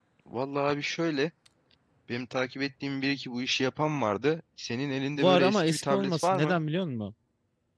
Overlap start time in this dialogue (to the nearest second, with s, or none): 5 s